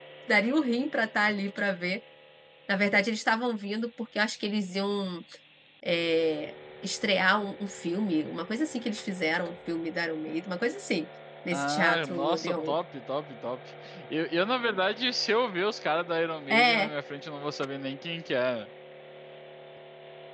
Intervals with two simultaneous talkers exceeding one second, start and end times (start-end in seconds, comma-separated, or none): 11.5-12.8